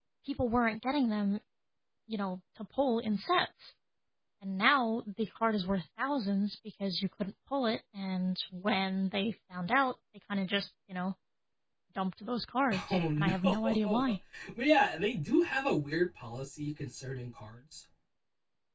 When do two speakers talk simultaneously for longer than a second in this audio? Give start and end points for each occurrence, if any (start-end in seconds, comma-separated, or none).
12.9-14.1